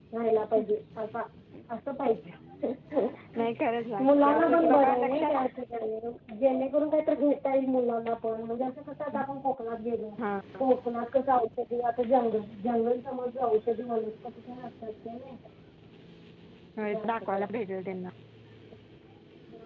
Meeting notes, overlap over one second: present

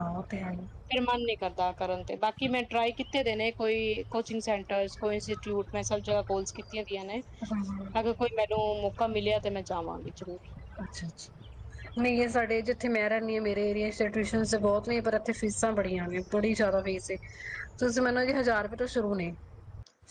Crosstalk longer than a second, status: none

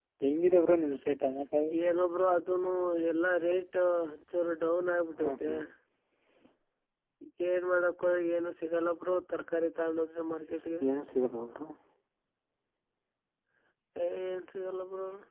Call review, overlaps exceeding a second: none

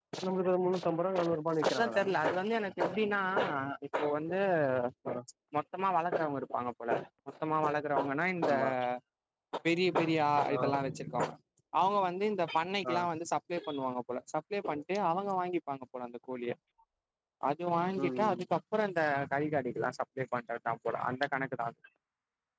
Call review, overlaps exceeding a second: none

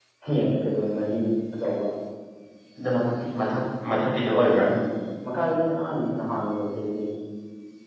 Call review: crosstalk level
none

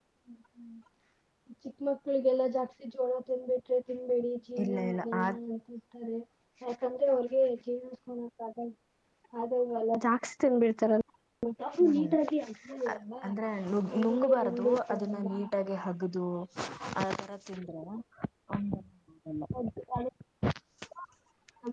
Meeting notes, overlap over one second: present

